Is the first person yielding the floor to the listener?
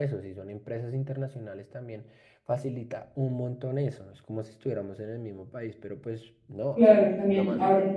Yes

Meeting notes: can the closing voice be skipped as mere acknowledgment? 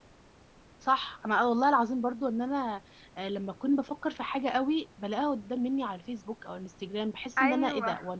Yes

